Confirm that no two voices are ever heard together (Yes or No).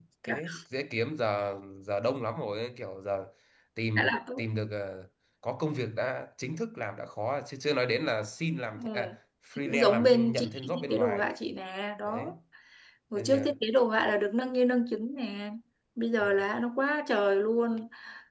No